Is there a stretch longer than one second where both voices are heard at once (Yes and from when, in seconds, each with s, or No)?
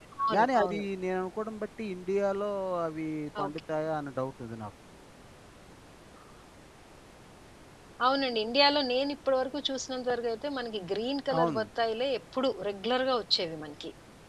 No